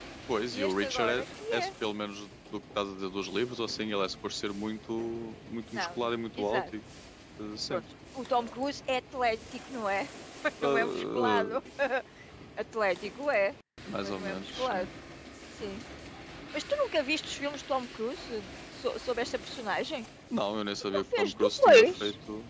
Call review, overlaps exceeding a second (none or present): present